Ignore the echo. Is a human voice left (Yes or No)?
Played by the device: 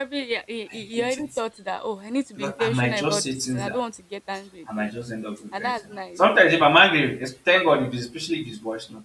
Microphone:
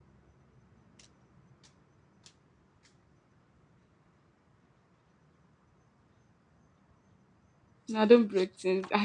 Yes